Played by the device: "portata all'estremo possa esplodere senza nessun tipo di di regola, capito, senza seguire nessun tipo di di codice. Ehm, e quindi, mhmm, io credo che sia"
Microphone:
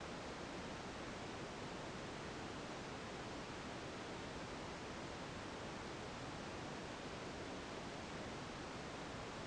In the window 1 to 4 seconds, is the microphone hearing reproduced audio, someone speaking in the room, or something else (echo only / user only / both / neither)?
neither